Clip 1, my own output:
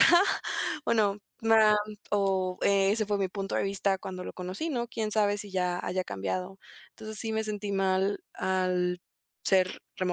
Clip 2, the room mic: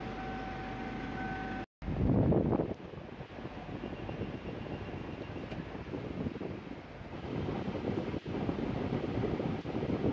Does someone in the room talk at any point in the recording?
No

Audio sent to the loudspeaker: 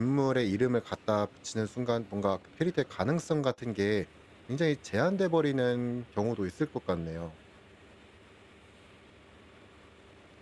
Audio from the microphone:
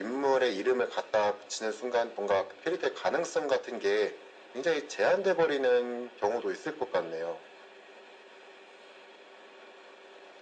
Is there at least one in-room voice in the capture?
No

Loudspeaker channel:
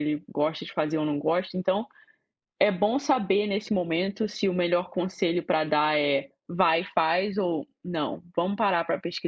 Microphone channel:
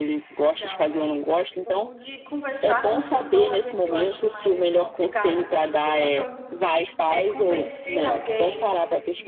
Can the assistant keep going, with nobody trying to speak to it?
No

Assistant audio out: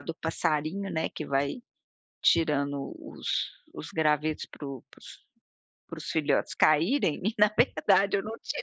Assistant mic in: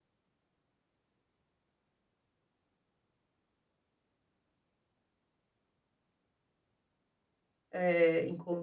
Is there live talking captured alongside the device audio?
Yes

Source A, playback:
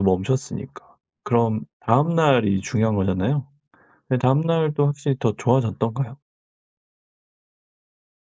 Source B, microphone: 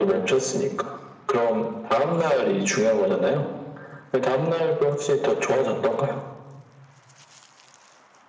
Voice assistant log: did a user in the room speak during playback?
No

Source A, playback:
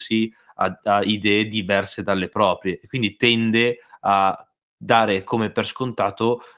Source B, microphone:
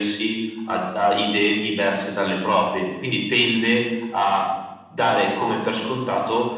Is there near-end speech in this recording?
No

